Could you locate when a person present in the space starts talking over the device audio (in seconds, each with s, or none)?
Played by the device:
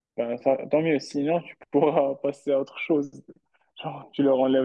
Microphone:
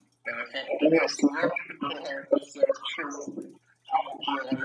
none